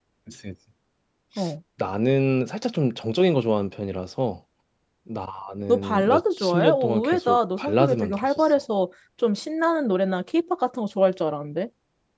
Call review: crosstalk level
present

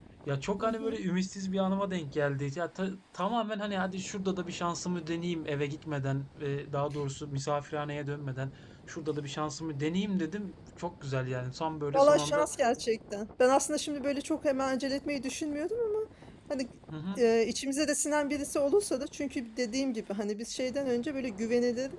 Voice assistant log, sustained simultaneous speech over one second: none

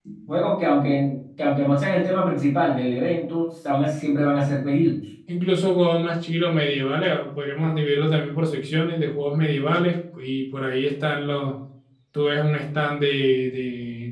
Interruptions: none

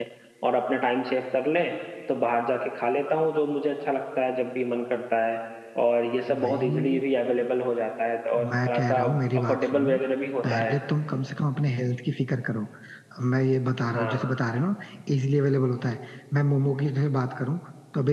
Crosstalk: present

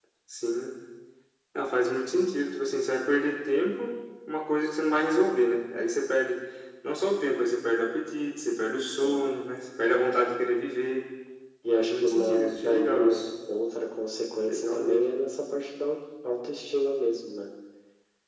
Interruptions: present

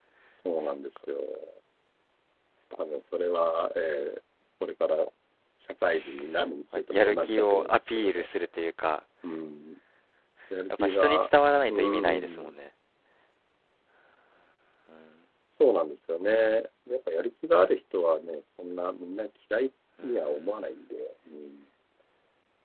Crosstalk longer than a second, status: present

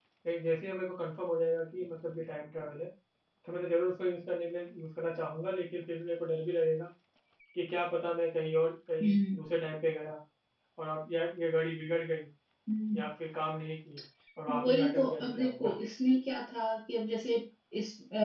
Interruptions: present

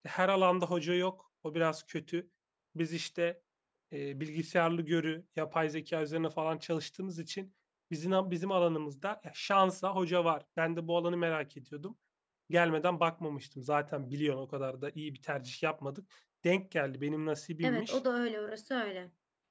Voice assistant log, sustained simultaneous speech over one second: none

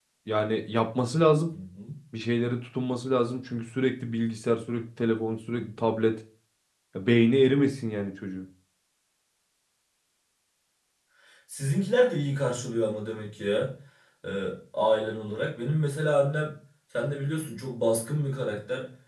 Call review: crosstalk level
none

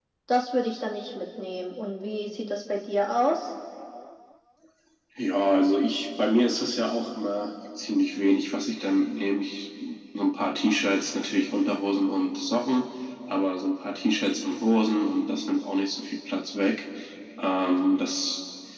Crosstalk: none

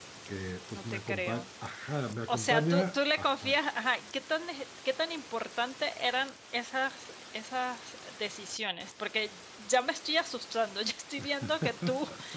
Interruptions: present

